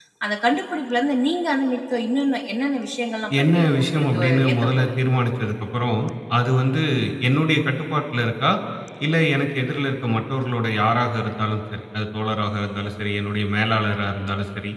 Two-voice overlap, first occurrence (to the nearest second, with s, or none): 3 s